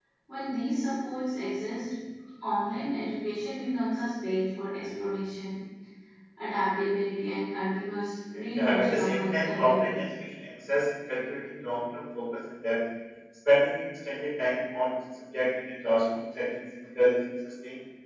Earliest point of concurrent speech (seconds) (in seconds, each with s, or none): 8.6 s